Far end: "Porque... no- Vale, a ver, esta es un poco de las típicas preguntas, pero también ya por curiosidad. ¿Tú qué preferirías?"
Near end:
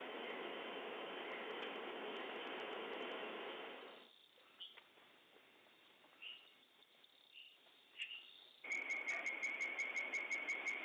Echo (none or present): none